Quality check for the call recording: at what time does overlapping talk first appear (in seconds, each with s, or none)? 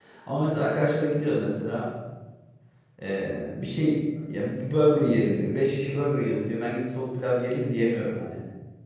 none